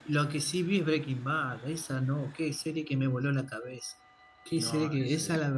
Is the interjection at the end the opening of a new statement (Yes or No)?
No